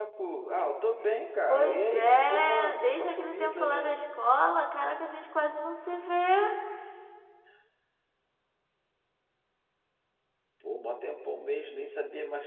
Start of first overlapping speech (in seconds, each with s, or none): 1.5 s